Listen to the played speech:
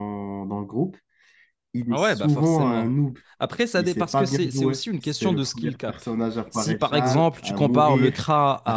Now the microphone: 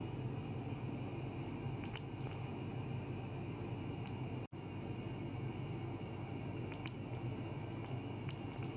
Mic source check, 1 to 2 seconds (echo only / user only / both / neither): neither